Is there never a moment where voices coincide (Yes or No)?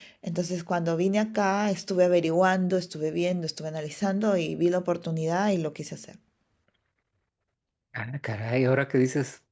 Yes